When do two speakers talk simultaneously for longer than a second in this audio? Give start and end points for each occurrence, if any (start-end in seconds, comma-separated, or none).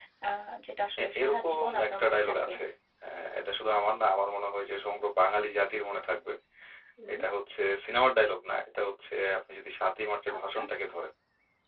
1.0-2.5